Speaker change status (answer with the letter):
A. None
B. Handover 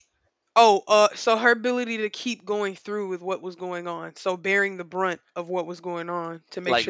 A